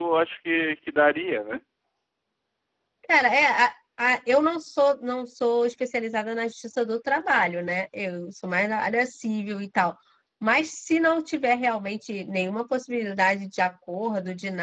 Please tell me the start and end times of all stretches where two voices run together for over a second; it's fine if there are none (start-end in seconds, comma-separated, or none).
none